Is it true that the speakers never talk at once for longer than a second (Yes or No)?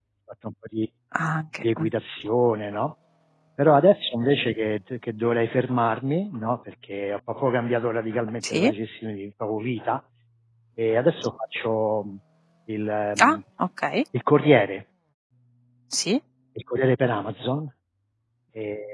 Yes